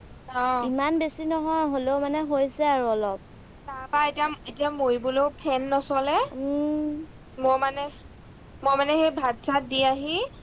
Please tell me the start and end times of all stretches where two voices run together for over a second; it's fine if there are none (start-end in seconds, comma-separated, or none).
none